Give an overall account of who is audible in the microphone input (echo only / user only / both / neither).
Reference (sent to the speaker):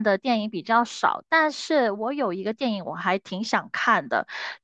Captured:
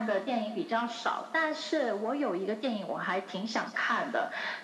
echo only